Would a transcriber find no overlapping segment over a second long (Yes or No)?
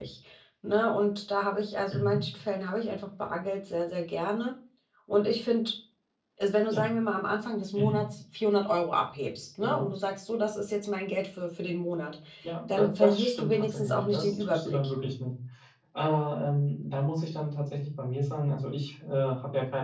No